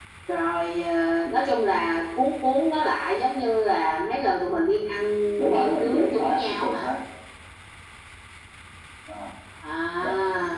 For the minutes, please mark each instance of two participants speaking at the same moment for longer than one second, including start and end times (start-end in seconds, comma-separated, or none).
5.5-6.9